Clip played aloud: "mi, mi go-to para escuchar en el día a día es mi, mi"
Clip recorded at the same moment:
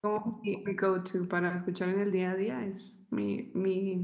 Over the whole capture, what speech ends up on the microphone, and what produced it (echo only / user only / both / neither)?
echo only